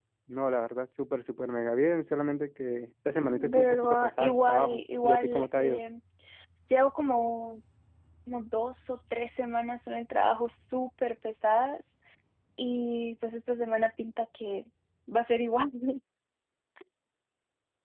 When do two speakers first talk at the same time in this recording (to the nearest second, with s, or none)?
3 s